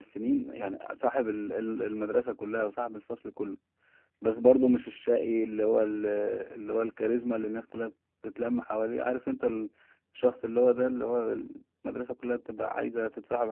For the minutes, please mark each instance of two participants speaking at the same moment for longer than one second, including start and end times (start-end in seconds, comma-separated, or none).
none